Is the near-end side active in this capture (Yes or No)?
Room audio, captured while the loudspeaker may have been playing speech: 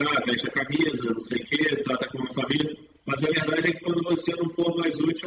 No